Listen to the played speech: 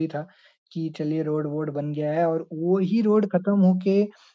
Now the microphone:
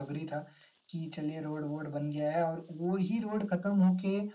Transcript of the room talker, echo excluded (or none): none